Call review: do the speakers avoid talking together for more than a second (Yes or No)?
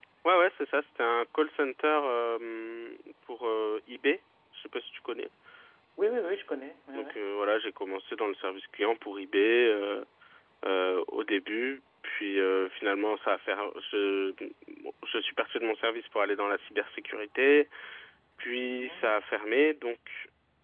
Yes